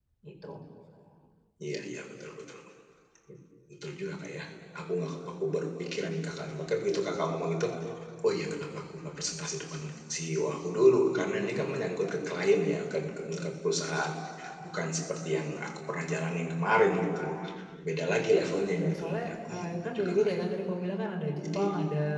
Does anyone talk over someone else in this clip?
Yes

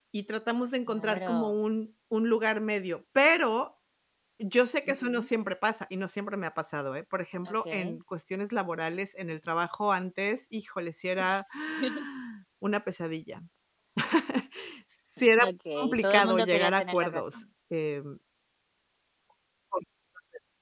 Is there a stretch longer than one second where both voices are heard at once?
Yes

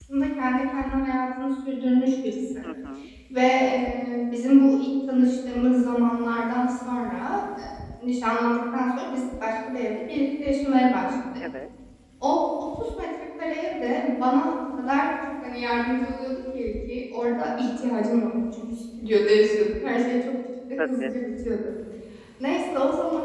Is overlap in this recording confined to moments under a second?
Yes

